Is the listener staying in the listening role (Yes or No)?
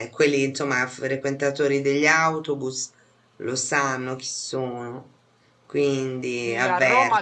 No